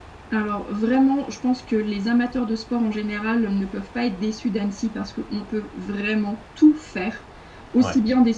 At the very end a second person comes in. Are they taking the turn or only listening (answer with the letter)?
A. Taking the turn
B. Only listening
B